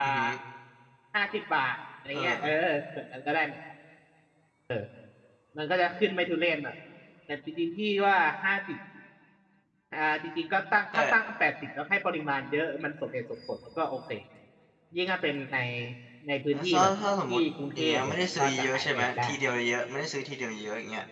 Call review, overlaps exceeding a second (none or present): present